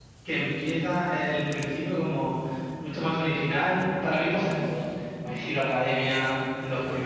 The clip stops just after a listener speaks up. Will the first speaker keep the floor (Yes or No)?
No